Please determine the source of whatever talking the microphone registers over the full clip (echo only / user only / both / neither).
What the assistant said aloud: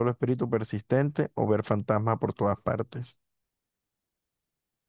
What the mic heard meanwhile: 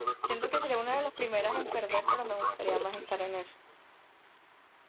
both